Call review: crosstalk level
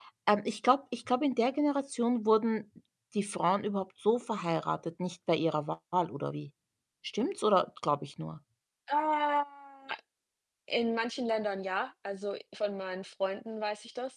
none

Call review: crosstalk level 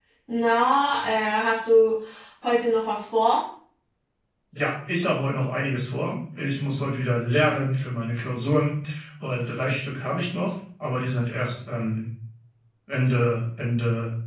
none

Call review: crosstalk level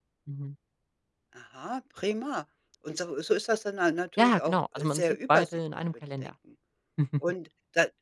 present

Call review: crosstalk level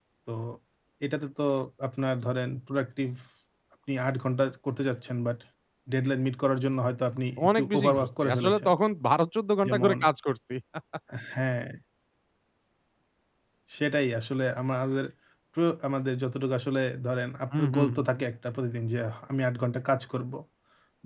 present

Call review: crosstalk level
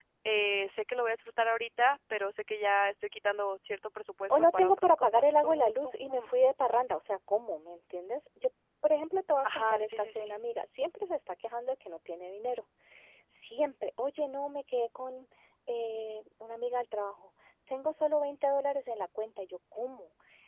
present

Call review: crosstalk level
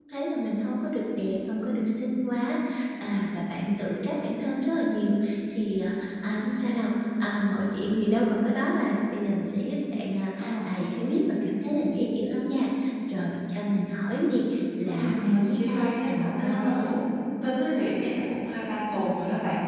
present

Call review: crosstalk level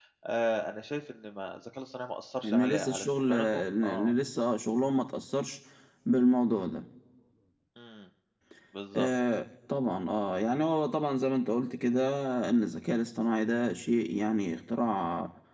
present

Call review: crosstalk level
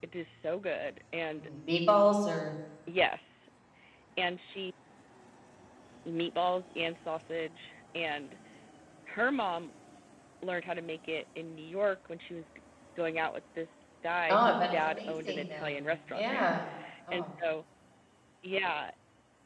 present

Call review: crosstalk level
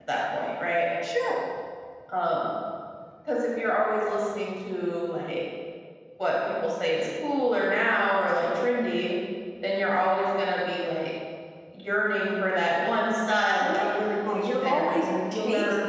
present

